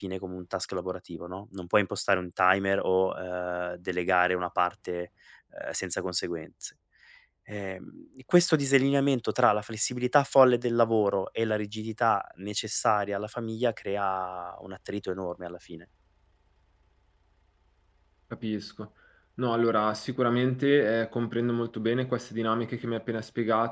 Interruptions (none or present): none